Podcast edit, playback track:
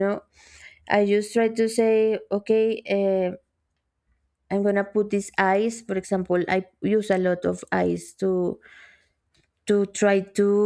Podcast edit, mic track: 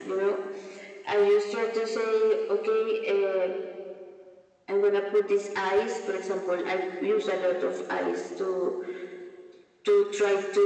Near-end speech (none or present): none